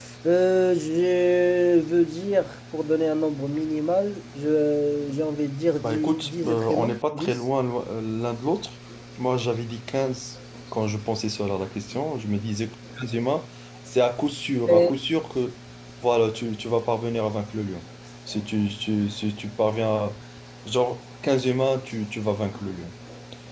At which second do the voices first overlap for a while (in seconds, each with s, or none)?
5.8 s